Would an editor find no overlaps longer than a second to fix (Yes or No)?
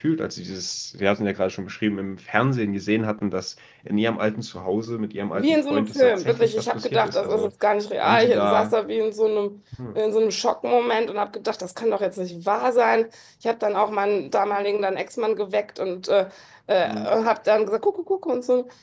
No